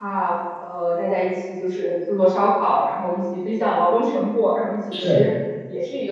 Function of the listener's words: listening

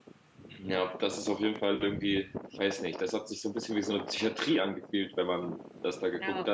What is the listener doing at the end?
listening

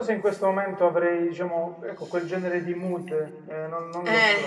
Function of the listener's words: taking over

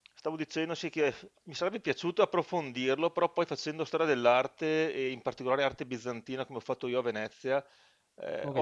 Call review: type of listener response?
listening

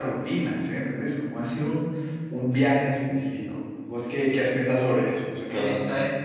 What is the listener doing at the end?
taking over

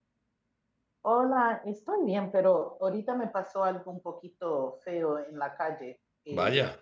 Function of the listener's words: listening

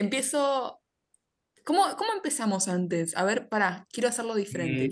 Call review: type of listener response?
taking over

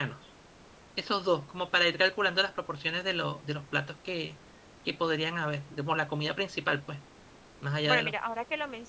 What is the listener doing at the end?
taking over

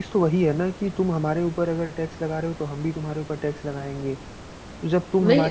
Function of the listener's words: listening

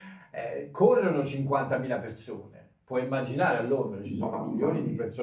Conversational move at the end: listening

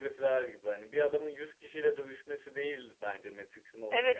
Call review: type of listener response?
taking over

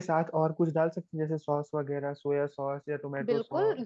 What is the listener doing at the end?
taking over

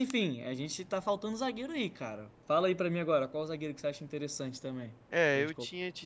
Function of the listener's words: taking over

